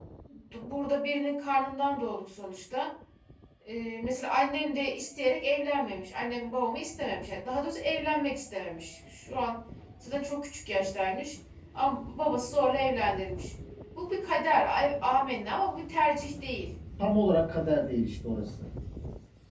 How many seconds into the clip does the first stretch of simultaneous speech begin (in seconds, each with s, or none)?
none